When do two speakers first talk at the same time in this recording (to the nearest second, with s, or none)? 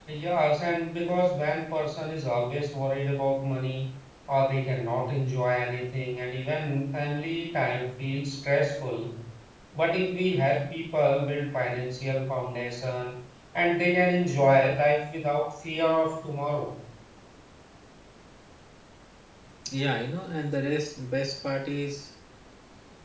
none